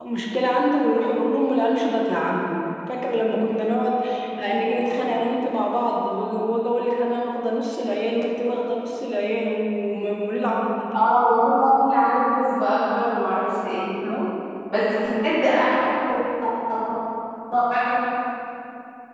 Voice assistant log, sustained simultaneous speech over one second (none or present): none